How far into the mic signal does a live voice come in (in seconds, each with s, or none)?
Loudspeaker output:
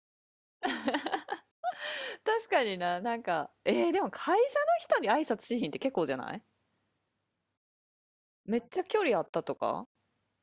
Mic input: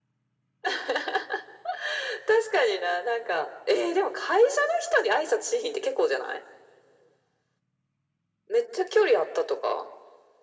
none